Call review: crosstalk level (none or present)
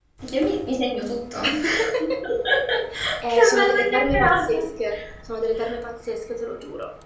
present